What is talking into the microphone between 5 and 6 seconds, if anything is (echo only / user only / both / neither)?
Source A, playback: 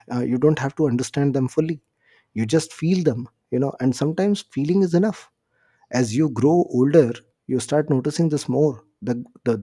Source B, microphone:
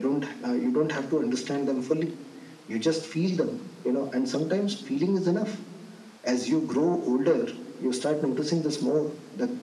echo only